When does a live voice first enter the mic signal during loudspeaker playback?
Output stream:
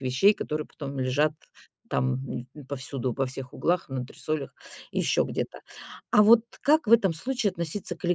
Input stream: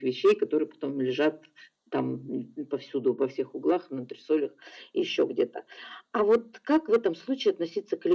none

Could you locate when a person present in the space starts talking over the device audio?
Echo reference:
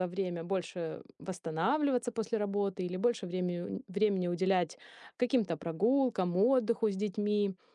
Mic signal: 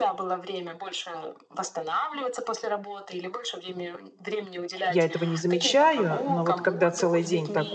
5 s

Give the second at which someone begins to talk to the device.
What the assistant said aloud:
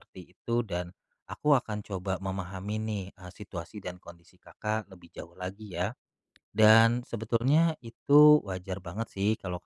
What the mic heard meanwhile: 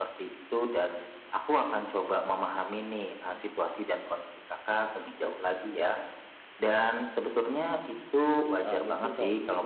9 s

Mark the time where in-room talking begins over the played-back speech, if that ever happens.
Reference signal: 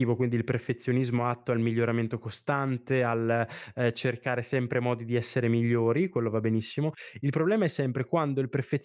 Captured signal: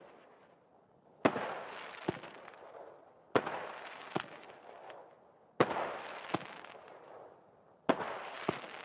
none

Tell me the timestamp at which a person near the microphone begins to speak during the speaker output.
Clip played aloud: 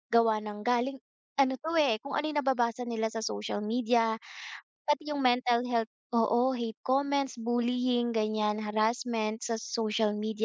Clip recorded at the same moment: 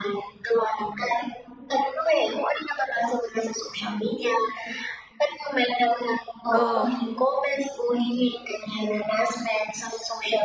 7 s

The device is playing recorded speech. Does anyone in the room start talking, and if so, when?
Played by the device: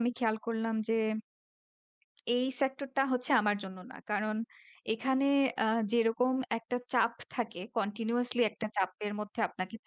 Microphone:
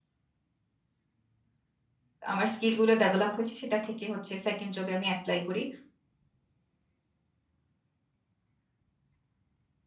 2 s

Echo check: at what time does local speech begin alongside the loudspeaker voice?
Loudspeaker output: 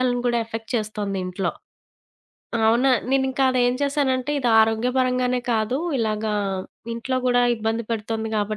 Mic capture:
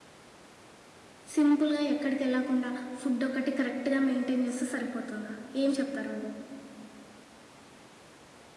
1 s

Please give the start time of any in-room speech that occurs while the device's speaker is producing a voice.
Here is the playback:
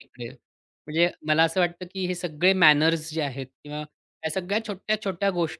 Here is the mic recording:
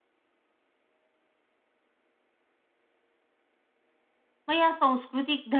4 s

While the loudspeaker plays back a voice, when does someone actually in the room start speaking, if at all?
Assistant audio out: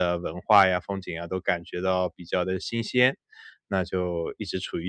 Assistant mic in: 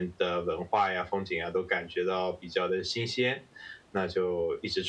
none

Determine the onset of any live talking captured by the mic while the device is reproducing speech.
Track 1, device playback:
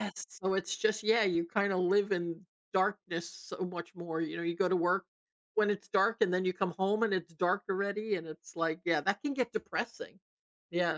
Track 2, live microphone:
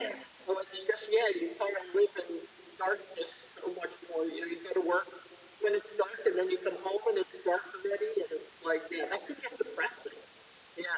none

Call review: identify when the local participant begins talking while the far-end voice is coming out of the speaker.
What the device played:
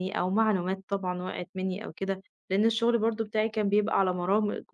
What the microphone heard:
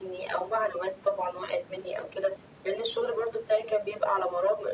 none

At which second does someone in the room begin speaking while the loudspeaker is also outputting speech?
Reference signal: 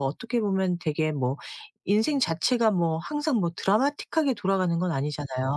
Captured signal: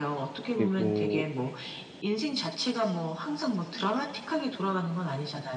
0 s

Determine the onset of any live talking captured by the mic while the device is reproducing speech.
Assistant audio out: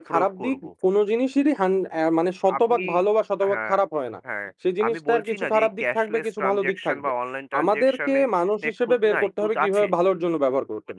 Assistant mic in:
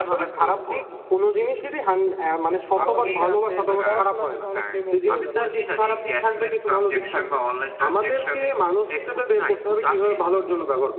3 s

